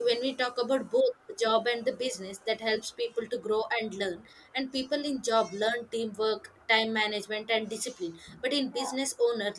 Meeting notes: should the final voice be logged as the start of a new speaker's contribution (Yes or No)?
No